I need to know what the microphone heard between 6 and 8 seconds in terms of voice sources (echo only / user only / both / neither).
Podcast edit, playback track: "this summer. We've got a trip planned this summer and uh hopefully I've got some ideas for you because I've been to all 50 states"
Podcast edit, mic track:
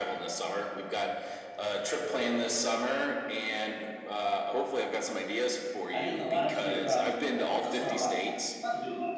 both